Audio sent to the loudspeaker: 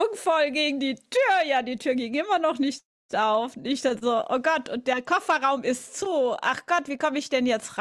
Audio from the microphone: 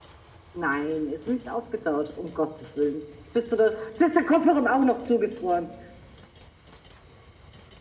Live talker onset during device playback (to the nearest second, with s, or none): 1 s